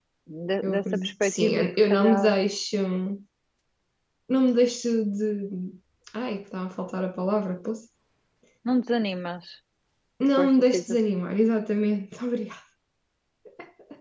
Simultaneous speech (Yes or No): Yes